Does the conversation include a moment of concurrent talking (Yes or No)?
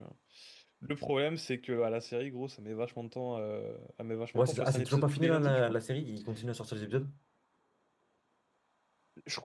Yes